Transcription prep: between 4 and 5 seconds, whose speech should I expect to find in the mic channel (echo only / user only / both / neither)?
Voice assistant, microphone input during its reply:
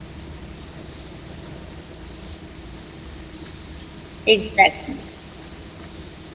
user only